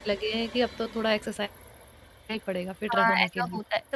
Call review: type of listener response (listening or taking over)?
taking over